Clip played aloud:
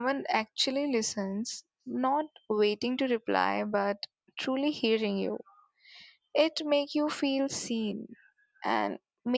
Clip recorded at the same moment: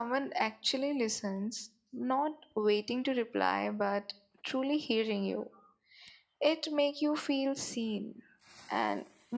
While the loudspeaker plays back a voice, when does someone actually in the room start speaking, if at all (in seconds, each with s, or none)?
none